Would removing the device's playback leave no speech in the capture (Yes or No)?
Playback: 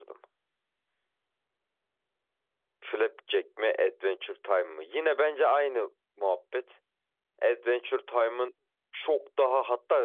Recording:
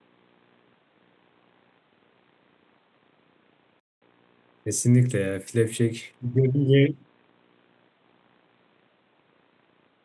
No